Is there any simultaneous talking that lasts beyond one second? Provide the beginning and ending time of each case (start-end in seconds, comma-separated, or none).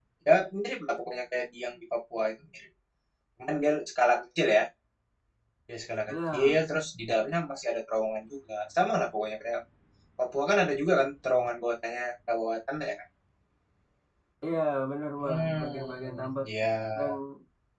15.2-16.5